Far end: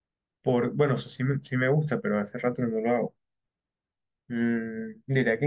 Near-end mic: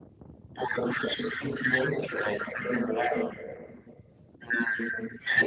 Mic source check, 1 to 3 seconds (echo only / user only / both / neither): echo only